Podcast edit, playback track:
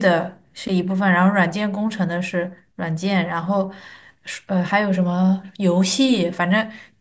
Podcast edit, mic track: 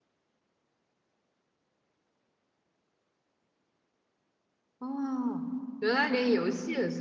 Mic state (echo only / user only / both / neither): user only